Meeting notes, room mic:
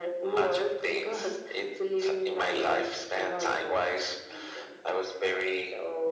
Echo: present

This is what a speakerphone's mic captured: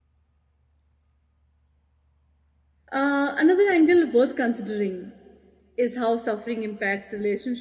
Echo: none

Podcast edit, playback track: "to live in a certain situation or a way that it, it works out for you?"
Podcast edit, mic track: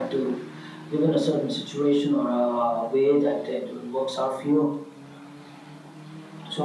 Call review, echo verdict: present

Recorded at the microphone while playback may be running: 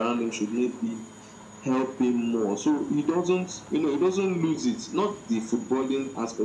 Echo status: present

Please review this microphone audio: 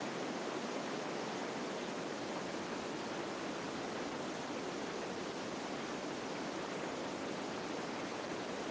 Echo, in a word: none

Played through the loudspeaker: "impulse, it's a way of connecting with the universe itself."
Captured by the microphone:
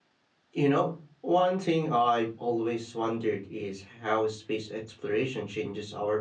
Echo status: none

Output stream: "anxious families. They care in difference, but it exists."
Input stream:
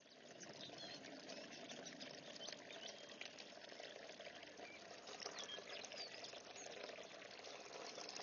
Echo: none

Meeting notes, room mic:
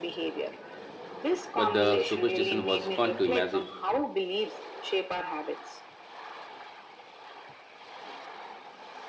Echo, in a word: present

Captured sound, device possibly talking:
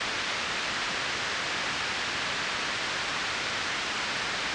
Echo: none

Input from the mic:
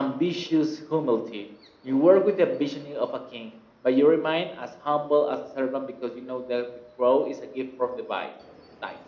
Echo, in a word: present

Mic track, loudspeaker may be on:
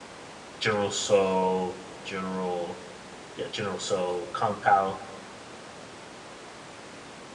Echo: none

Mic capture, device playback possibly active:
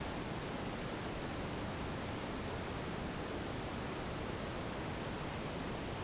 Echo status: none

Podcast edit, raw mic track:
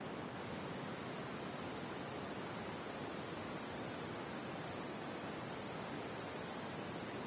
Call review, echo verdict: none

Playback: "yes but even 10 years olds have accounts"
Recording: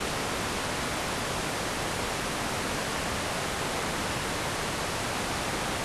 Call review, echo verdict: none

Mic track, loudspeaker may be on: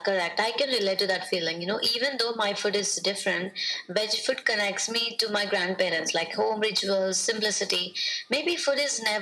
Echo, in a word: present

